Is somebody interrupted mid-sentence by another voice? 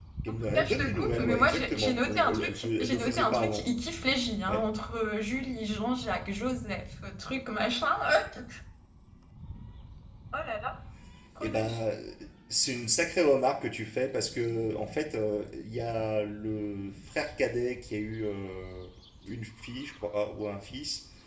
Yes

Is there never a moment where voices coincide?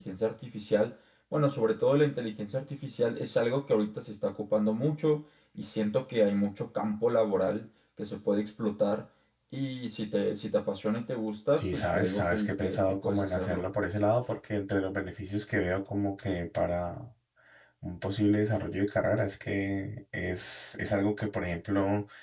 No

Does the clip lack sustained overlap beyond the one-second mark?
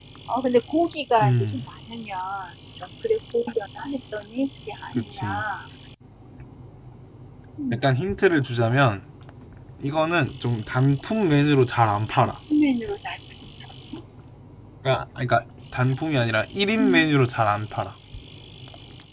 Yes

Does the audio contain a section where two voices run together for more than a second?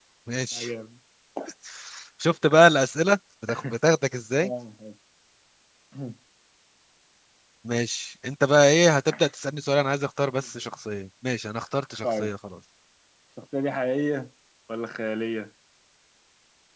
No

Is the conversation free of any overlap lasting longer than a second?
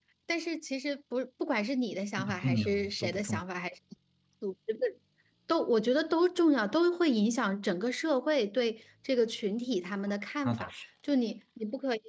No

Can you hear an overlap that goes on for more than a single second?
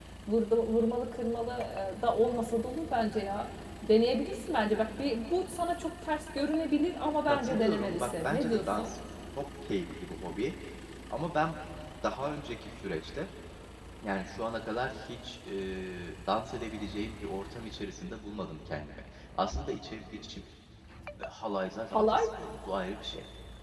Yes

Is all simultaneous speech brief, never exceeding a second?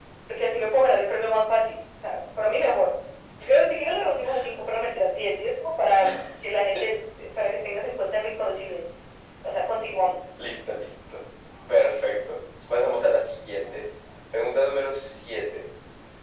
Yes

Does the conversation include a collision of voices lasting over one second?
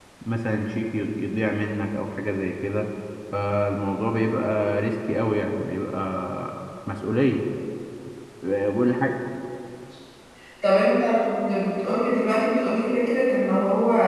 No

